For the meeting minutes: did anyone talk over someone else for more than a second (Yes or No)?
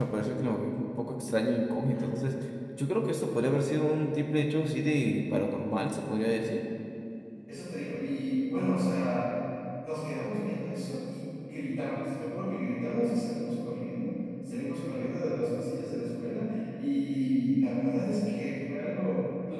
No